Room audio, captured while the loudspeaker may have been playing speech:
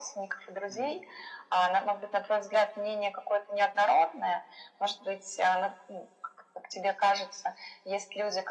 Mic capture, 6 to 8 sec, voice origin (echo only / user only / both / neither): echo only